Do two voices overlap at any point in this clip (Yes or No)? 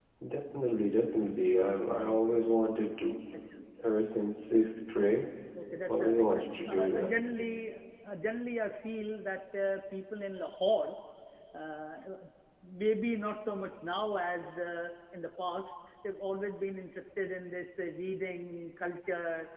Yes